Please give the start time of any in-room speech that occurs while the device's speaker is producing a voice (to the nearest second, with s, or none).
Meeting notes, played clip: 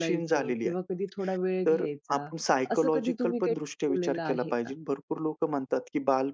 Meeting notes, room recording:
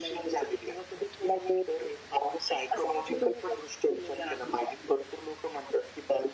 none